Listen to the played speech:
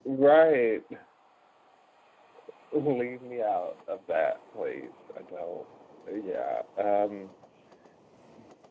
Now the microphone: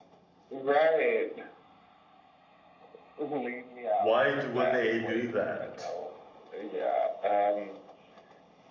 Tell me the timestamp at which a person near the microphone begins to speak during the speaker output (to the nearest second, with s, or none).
4 s